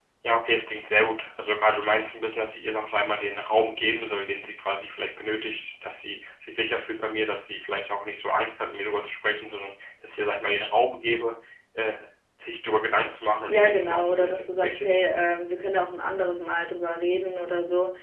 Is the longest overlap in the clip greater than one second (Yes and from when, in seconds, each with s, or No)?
Yes, from 13.5 s